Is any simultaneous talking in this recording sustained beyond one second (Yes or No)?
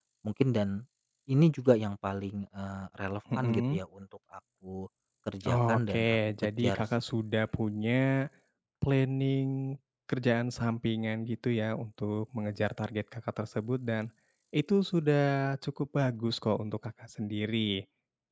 Yes